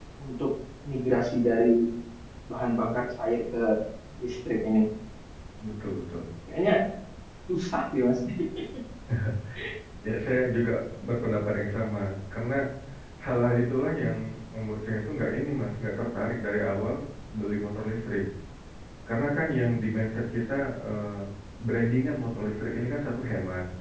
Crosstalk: none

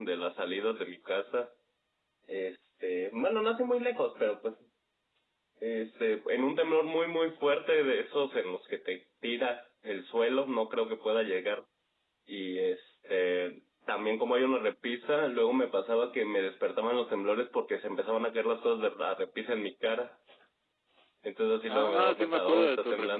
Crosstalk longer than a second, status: present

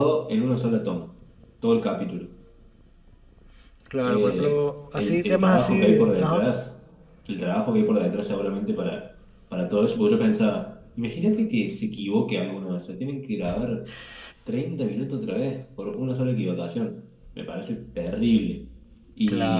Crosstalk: present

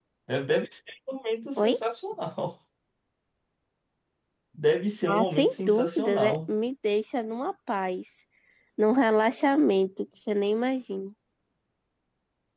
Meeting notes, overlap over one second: present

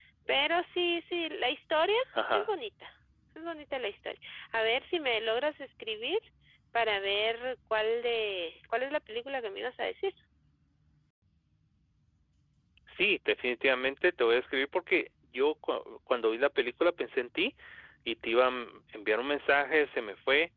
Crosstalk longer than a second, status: none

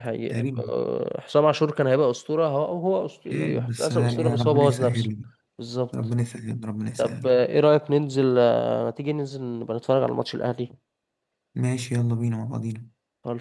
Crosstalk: present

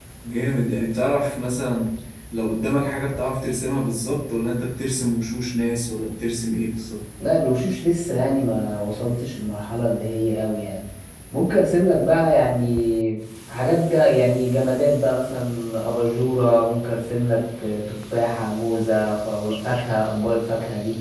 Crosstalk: none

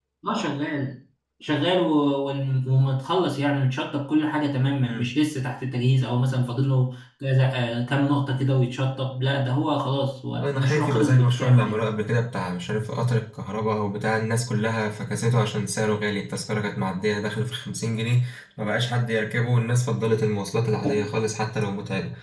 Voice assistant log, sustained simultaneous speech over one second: present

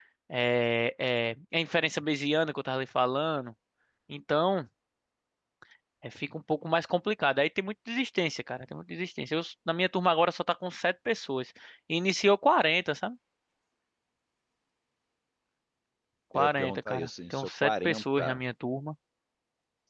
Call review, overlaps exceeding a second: present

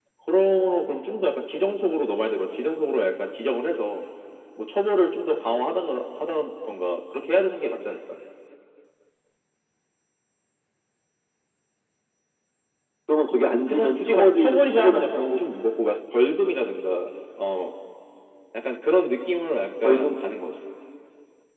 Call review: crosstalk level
present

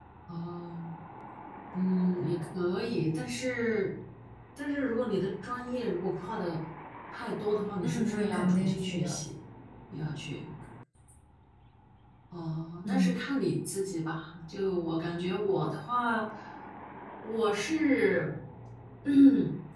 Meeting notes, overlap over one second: present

